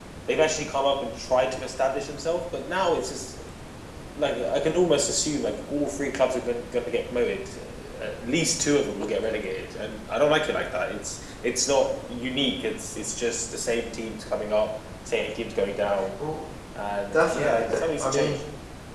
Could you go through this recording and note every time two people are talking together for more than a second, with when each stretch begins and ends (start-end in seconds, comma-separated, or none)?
17.1-18.4